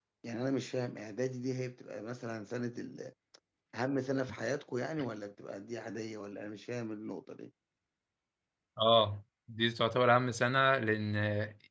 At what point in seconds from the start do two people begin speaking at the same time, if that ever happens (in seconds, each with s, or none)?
none